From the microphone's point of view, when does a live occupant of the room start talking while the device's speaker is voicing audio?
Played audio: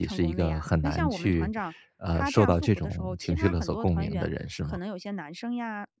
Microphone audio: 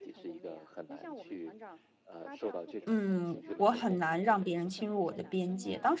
3 s

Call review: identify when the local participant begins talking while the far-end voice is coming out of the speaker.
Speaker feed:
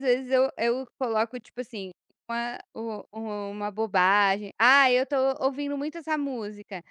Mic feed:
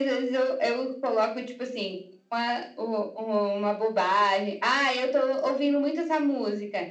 none

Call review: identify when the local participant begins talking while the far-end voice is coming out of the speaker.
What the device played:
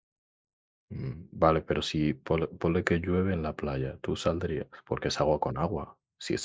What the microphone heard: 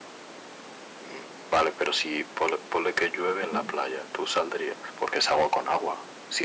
3 s

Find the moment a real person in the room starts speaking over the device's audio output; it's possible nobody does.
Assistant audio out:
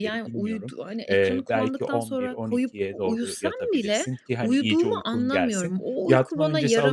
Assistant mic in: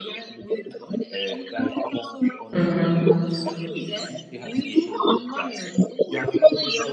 3 s

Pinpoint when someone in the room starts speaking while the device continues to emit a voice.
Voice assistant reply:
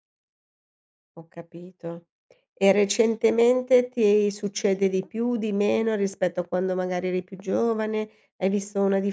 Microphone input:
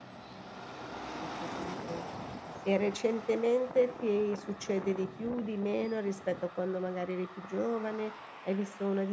none

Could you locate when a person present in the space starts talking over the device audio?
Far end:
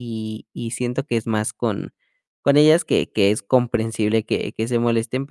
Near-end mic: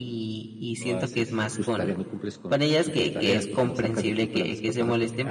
1 s

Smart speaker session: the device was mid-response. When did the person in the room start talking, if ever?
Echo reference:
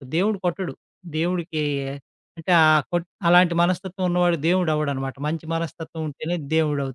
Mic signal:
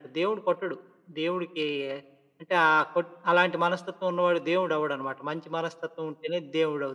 none

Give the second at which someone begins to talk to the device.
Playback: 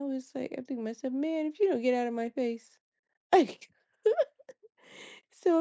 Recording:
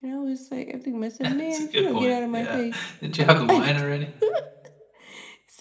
1 s

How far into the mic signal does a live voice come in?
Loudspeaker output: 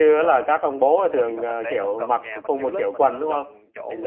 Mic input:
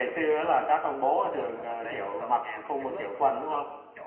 none

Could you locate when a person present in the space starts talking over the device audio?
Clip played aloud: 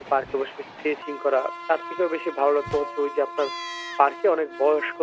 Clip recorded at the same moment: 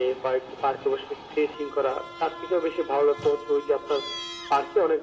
none

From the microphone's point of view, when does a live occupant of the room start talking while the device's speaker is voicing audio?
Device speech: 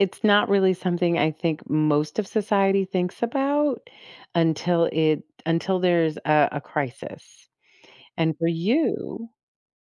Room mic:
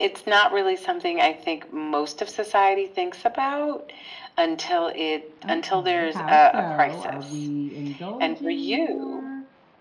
5 s

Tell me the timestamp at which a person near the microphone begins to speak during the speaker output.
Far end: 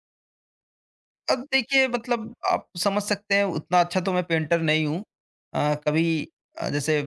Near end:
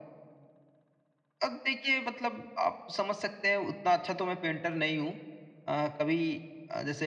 none

